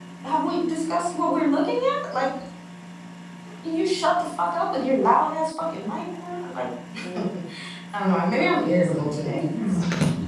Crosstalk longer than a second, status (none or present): present